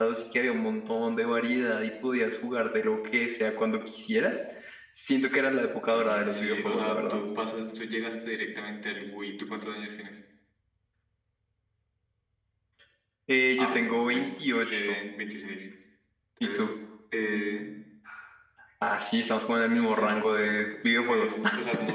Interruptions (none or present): present